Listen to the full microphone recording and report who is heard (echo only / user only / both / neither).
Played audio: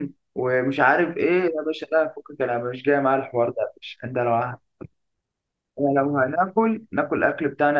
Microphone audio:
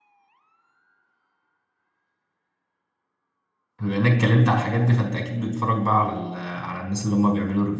user only